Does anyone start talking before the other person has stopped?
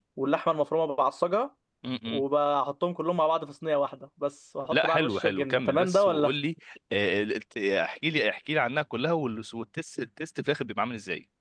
Yes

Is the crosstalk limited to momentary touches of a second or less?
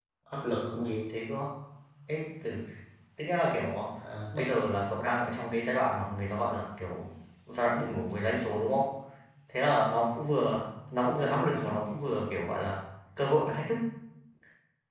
Yes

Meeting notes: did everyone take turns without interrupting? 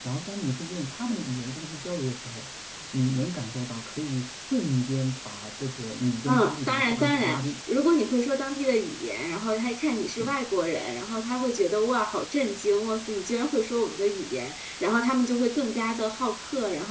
No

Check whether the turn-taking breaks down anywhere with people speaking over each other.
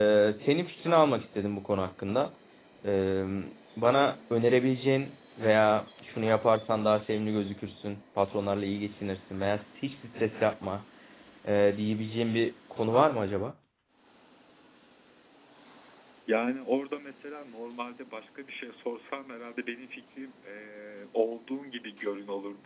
No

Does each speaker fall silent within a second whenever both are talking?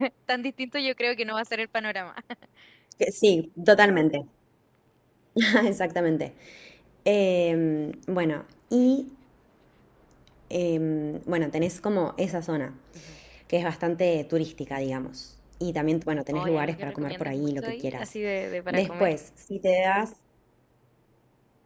No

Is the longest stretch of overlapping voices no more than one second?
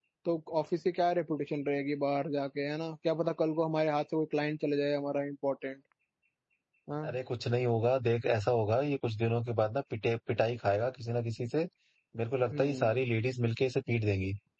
Yes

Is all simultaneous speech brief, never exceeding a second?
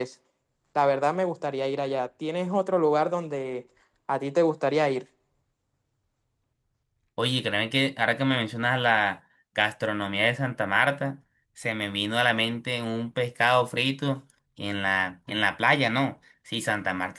Yes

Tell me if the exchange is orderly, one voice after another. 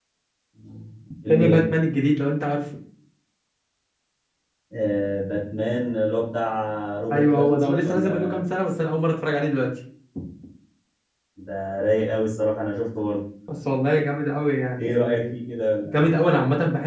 No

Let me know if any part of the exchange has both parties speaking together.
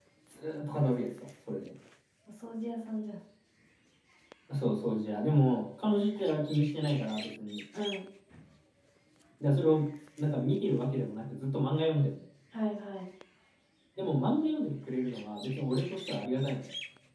No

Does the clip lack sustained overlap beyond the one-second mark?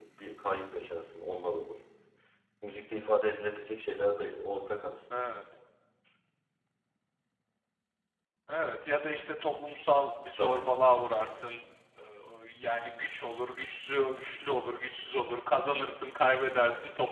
Yes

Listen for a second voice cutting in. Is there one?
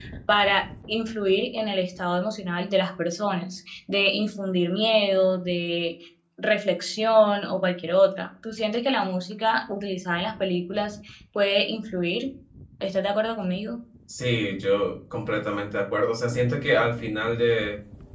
No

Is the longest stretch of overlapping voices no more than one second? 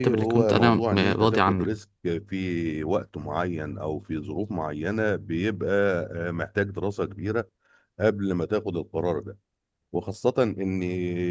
No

